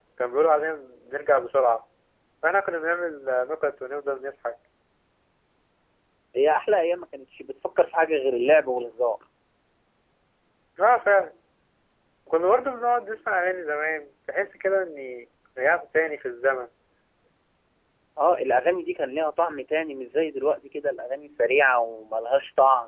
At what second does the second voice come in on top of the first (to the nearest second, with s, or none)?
none